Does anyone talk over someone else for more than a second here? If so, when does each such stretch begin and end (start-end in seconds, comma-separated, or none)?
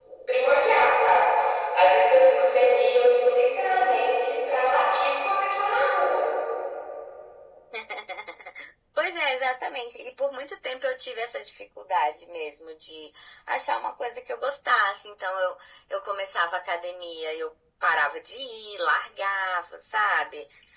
none